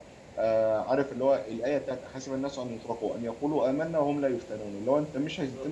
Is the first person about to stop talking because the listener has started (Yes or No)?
No